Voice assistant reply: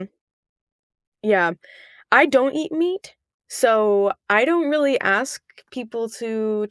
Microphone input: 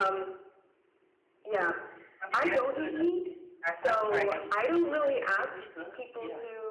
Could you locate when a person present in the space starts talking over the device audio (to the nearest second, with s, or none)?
2 s